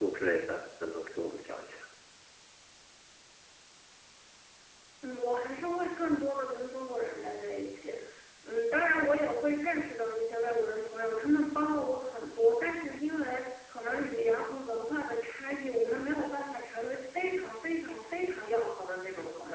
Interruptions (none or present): none